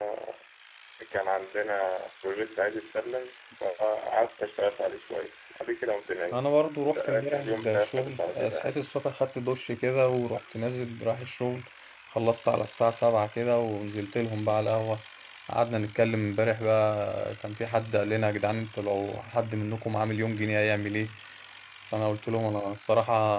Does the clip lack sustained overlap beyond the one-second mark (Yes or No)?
No